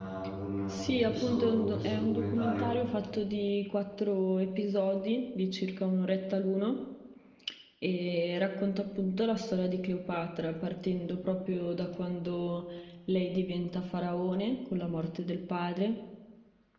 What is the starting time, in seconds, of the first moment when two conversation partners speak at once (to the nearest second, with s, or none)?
1 s